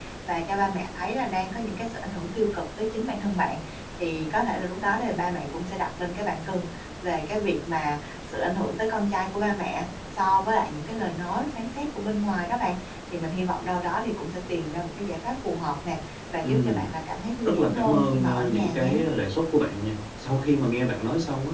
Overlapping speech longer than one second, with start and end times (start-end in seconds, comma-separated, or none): 17.4-19.0